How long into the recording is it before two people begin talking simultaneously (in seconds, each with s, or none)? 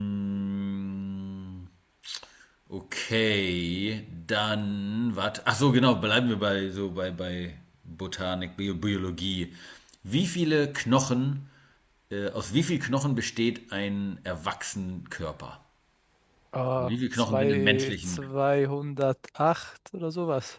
16.8 s